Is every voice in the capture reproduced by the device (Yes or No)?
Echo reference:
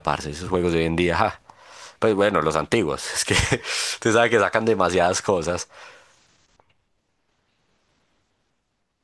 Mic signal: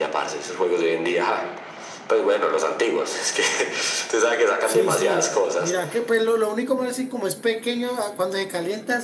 No